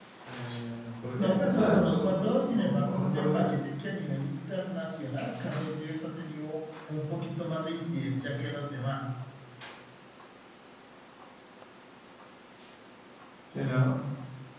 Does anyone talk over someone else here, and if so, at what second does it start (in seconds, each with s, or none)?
1.2 s